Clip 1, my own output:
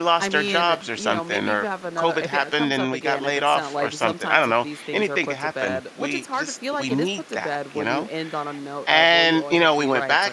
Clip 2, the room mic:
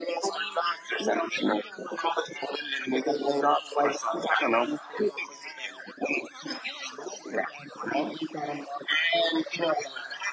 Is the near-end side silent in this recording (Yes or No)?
Yes